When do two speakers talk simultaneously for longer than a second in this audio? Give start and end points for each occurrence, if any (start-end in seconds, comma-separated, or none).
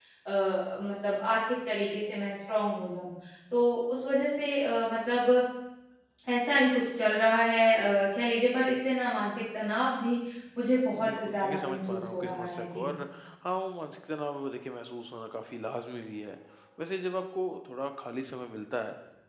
11.0-12.9